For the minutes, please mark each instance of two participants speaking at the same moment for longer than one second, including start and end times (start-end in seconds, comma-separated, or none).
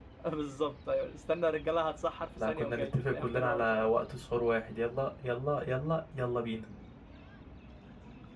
2.5-3.9